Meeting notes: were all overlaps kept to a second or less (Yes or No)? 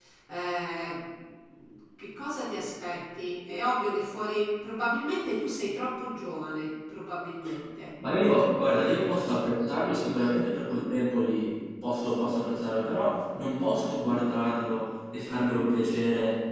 Yes